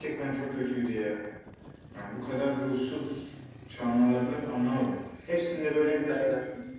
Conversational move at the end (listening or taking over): listening